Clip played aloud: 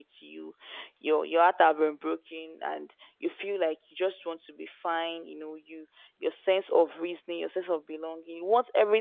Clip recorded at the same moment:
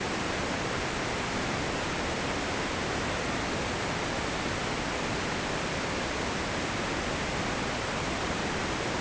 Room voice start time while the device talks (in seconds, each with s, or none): none